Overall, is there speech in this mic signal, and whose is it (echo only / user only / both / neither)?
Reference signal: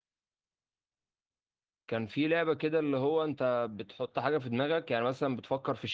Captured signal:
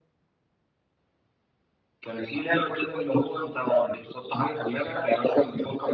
echo only